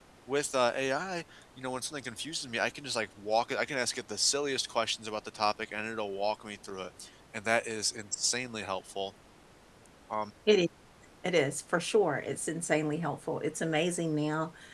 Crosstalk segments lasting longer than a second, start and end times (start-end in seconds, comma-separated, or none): none